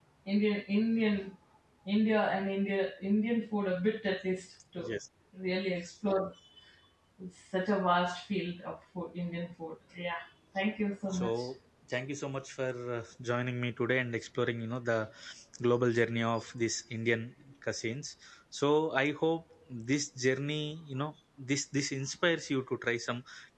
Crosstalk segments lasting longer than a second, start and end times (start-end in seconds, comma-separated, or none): none